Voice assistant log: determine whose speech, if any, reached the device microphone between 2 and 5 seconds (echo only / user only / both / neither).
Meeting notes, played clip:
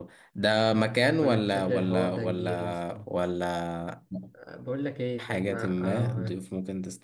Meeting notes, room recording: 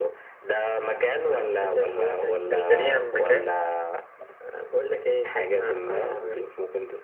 both